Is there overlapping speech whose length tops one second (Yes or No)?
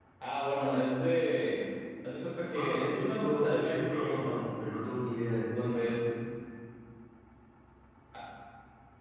Yes